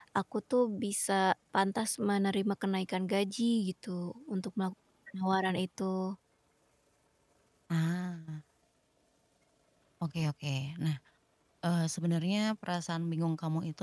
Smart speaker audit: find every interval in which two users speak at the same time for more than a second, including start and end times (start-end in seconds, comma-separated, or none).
none